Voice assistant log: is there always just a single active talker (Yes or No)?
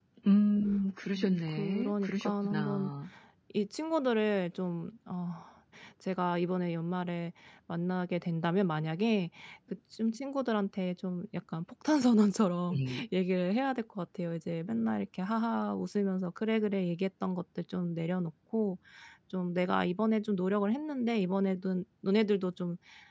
No